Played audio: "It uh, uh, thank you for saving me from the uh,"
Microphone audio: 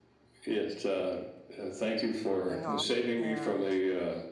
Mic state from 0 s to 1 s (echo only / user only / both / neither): echo only